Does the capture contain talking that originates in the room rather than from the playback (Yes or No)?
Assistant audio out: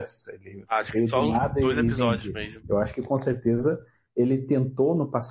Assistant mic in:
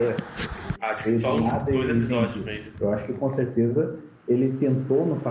No